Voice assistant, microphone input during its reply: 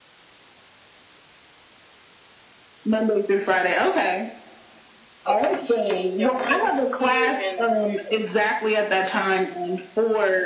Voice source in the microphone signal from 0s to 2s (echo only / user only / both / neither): neither